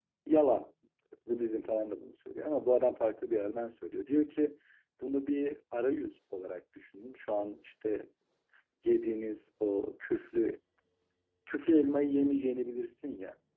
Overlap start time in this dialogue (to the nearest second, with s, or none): none